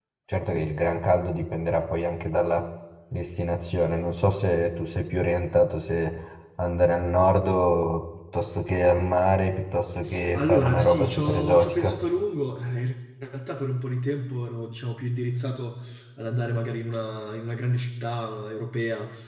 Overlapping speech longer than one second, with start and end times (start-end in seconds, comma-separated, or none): 10.3-12.0